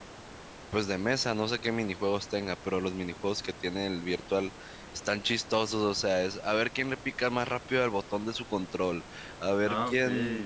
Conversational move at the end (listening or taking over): listening